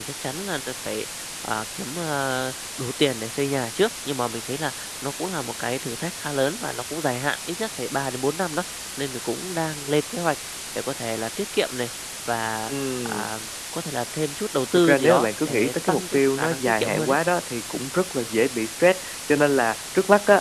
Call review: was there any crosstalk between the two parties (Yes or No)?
Yes